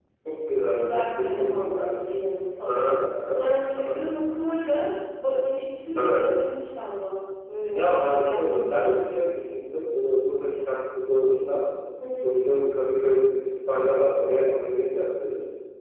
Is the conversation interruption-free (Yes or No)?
No